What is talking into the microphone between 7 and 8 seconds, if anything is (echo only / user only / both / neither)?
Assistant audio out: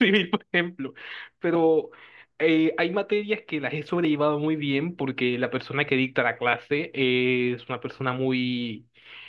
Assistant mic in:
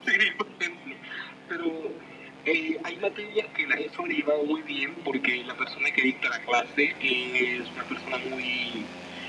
echo only